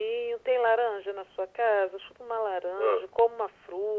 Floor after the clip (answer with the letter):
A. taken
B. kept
B